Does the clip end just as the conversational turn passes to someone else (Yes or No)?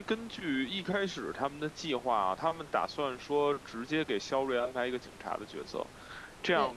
No